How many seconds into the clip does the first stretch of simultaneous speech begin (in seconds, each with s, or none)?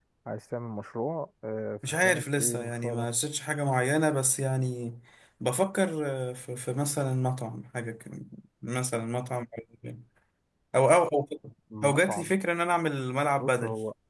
1.8 s